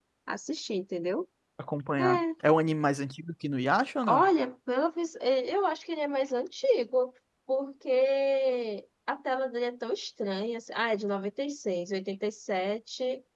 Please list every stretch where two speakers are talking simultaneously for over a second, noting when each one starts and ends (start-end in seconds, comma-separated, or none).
none